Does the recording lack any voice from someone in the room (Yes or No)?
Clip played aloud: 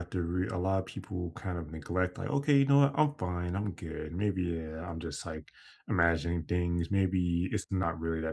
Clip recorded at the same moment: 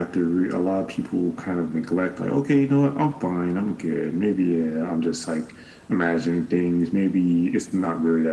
Yes